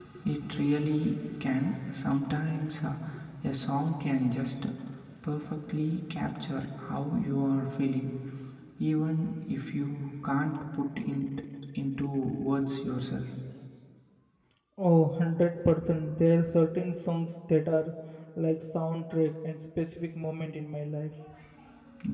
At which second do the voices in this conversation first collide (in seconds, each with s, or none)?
none